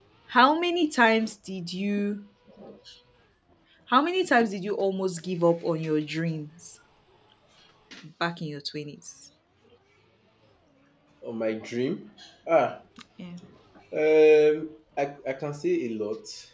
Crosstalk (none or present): none